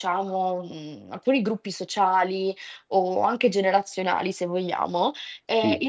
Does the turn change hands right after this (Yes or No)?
No